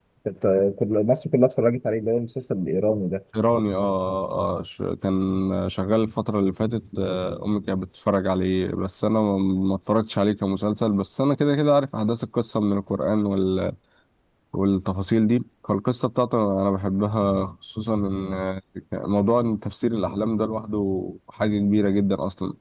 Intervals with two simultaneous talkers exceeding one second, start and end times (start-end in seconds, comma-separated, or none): none